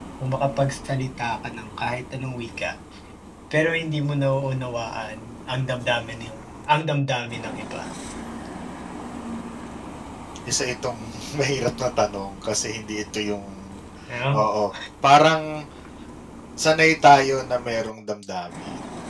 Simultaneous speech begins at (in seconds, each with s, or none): none